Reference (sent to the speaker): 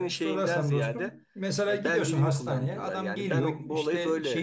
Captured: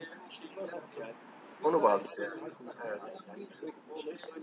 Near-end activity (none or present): present